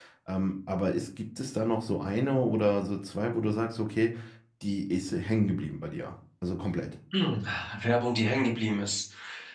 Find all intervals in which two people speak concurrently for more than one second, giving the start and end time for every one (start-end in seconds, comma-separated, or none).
none